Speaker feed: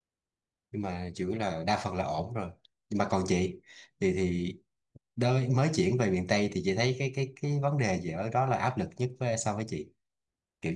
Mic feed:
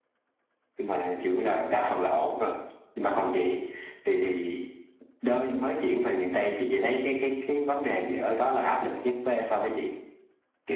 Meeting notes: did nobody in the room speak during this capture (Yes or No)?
Yes